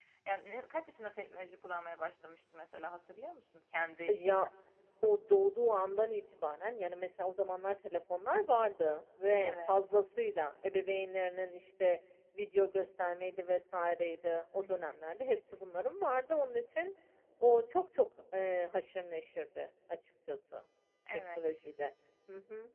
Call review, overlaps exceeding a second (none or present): none